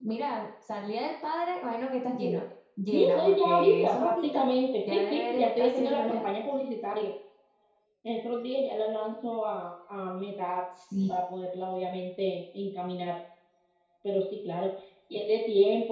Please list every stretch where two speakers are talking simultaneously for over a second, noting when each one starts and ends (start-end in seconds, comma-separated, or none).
2.9-4.4, 4.9-6.3